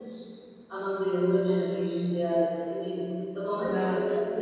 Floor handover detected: Yes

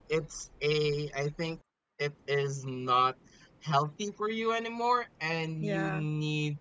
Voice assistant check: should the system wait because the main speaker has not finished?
Yes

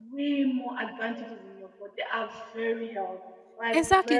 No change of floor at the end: No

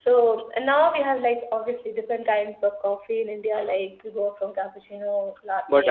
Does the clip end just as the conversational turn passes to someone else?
Yes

